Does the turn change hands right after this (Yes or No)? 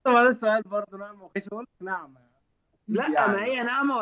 Yes